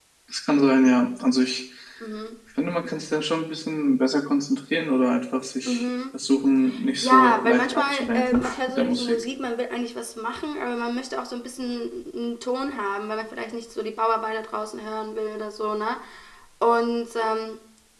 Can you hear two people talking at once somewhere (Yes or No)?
Yes